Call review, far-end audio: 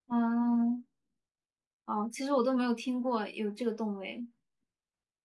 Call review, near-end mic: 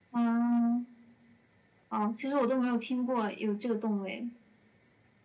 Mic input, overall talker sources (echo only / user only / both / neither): echo only